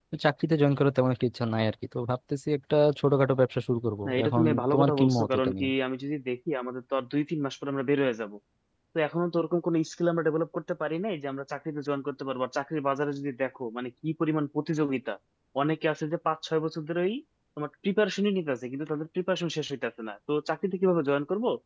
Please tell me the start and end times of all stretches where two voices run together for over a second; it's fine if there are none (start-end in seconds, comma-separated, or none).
4.0-5.7